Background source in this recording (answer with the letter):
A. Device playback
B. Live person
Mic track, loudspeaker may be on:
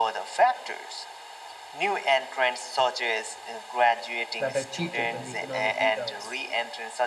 B